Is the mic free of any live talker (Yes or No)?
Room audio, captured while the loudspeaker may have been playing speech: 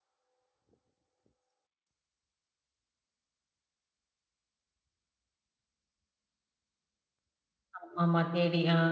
No